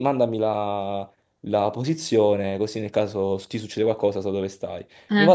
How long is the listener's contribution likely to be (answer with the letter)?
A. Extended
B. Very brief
B